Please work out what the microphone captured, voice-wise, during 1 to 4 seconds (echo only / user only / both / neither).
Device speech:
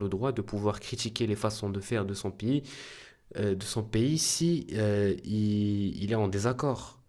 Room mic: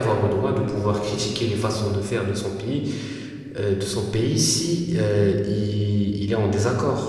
echo only